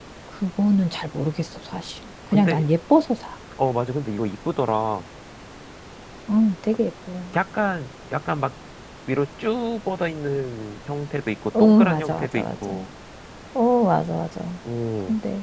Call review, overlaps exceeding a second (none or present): present